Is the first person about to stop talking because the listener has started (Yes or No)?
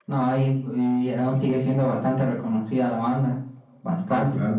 Yes